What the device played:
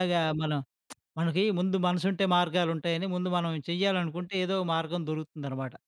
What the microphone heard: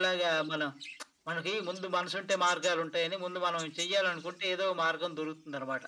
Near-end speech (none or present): none